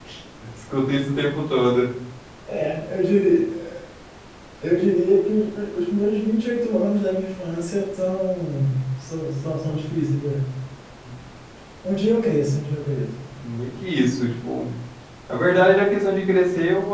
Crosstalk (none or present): none